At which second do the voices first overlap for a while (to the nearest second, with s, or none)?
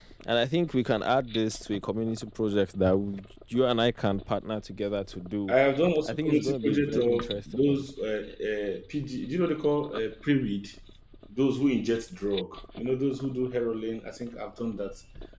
6 s